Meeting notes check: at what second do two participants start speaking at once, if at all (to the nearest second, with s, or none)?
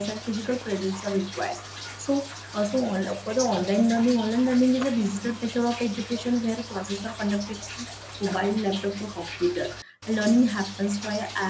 none